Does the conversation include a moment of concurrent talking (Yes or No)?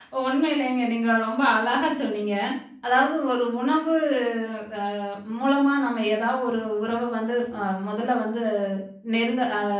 No